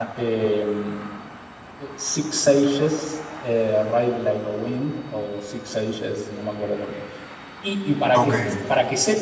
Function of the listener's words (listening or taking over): listening